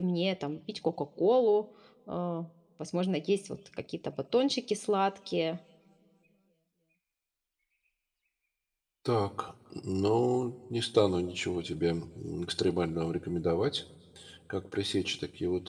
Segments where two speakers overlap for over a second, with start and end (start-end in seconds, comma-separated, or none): none